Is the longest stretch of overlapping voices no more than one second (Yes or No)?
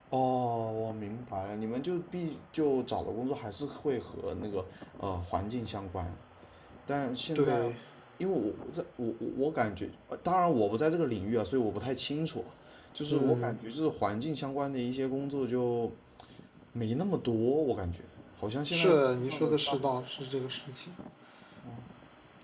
No